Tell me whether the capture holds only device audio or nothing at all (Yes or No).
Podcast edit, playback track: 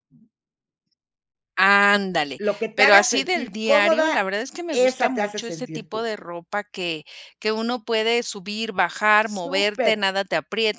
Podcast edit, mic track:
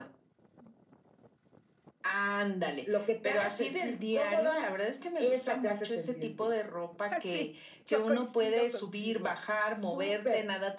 No